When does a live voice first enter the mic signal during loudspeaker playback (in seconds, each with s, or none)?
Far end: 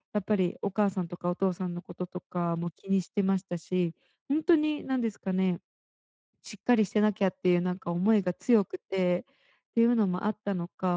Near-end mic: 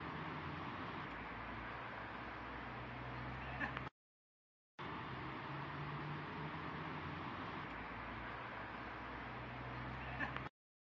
none